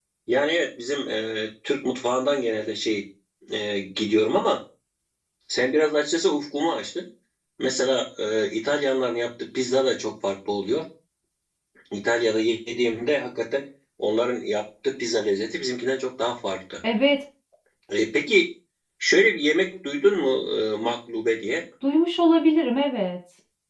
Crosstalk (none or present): none